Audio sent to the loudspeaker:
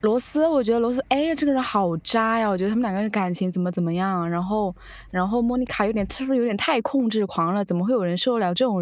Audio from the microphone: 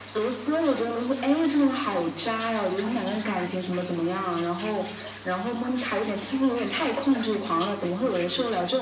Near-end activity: none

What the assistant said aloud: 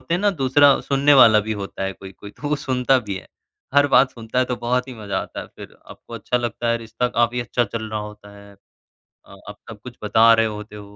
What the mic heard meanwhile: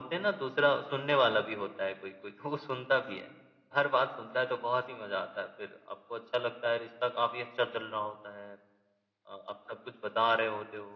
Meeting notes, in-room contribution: none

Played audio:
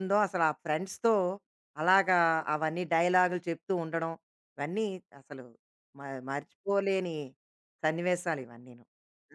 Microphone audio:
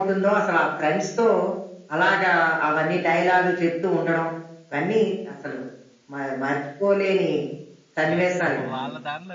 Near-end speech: present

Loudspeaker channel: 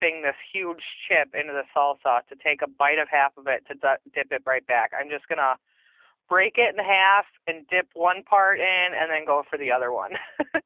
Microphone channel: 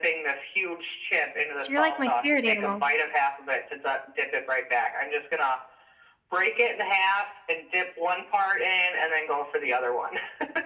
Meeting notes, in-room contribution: present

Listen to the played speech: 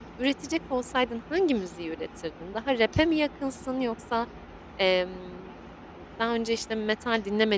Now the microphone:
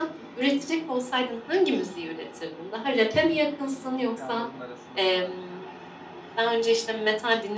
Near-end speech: present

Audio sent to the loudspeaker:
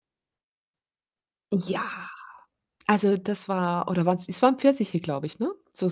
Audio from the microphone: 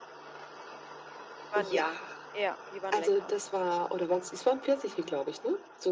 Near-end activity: present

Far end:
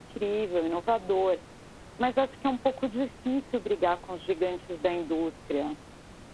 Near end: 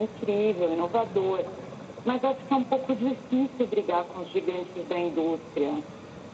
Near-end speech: none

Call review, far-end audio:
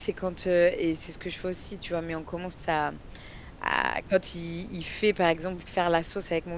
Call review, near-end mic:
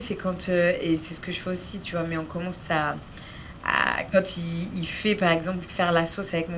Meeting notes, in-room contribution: none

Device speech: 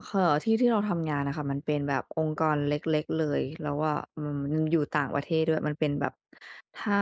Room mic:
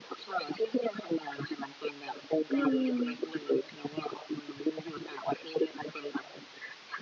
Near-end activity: present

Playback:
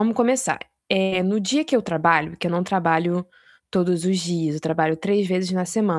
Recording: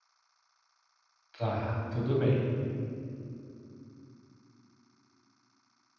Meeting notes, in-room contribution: present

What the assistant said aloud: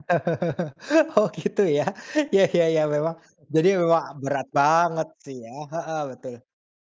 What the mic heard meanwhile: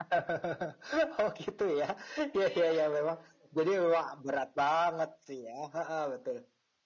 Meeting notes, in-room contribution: present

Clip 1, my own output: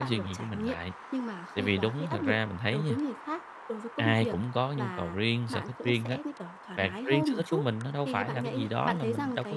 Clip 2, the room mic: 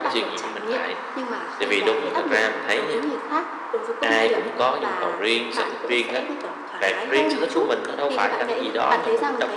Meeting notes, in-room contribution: none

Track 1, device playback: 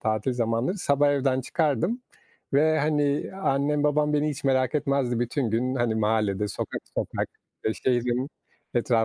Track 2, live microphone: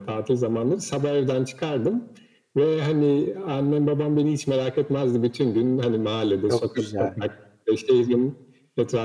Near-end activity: present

